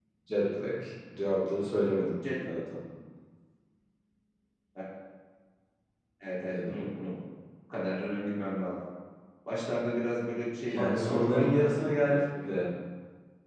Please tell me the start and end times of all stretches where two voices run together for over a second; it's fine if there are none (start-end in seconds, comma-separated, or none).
10.7-12.5